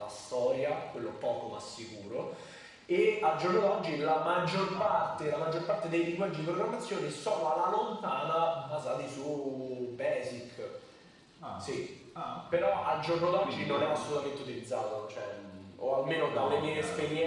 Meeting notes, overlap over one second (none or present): present